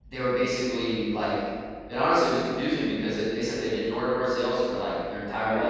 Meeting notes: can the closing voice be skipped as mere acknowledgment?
Yes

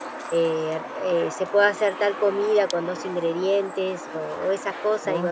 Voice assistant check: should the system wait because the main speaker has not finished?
Yes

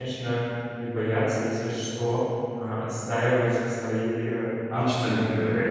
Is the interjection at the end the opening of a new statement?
Yes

